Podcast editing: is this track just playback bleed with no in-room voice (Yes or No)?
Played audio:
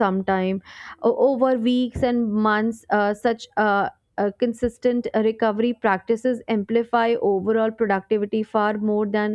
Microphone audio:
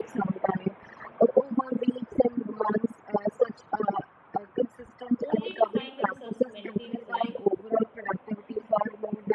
No